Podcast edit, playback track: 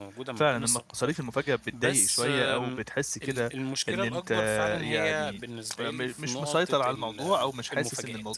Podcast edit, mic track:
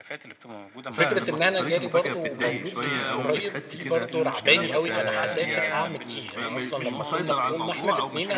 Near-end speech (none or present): present